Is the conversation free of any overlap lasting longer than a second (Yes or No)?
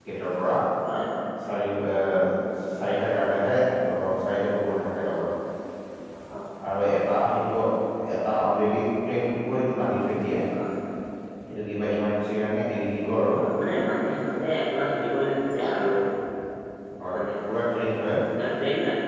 Yes